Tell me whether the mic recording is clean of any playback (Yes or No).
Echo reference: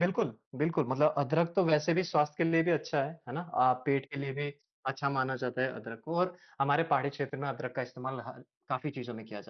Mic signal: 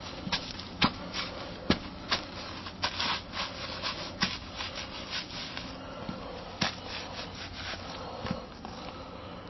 Yes